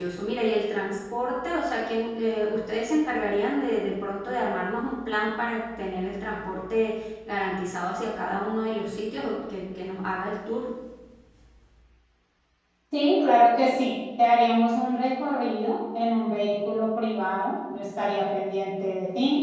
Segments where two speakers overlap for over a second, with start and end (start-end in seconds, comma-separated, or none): none